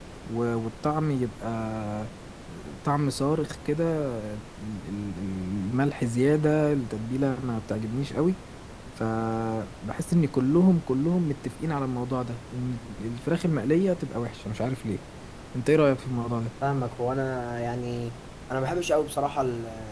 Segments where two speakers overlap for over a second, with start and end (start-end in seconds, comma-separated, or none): none